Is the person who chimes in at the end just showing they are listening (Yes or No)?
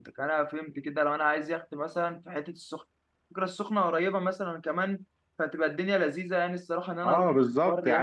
No